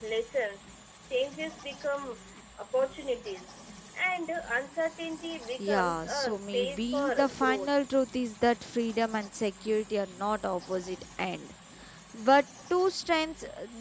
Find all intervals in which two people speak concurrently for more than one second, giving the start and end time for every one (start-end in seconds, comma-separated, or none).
5.6-7.7